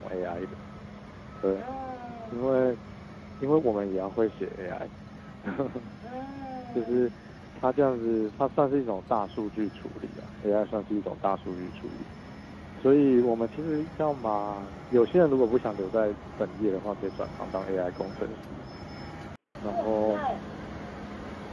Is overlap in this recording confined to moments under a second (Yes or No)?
Yes